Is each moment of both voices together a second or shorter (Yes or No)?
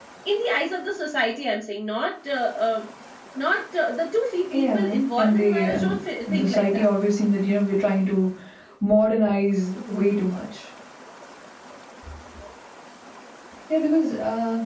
No